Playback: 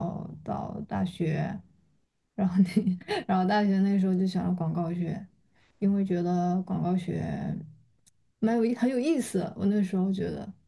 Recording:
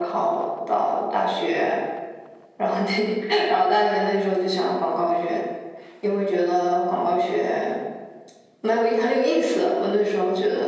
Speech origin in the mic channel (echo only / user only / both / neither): echo only